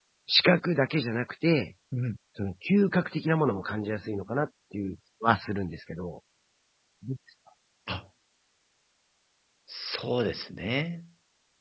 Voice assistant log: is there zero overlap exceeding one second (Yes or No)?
Yes